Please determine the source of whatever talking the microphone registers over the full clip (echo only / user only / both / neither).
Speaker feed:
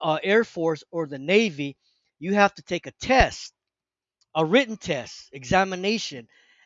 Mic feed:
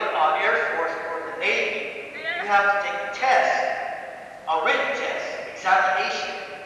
both